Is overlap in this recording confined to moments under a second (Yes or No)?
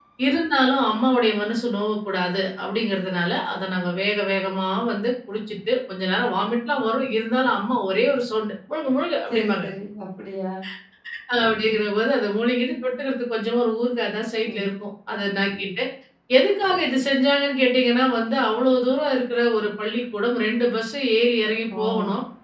Yes